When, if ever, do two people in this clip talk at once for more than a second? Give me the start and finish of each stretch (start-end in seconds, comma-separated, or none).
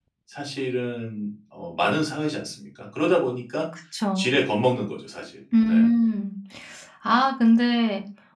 none